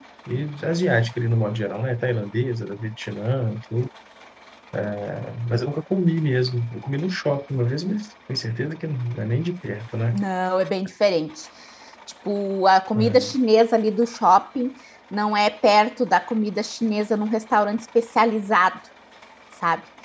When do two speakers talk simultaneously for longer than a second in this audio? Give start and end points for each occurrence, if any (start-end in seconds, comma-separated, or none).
none